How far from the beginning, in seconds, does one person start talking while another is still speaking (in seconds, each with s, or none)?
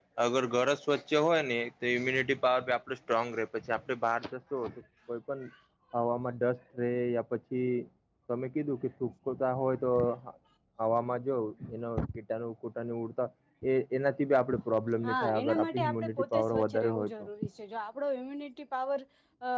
15.0 s